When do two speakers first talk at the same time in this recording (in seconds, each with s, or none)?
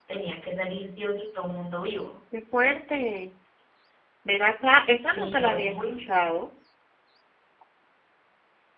4.9 s